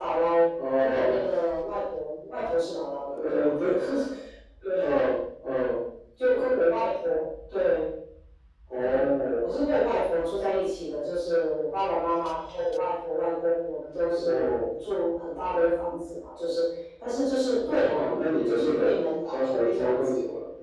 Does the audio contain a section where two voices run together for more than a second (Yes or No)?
Yes